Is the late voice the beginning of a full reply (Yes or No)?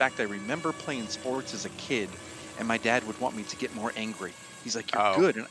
No